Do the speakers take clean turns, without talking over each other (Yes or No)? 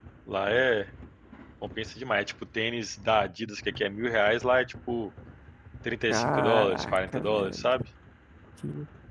No